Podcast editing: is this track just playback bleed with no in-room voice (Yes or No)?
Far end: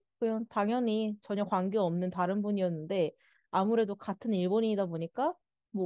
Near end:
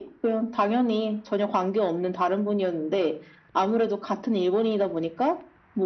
Yes